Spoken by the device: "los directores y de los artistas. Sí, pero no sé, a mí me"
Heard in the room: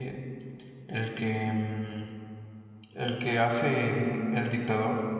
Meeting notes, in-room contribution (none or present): present